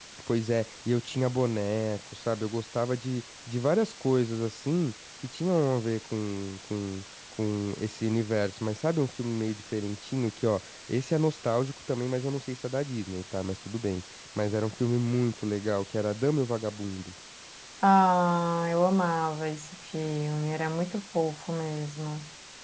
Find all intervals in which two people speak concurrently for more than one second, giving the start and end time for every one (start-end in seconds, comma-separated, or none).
none